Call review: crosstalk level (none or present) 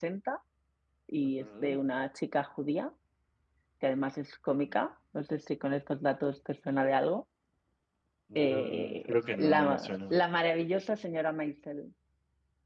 present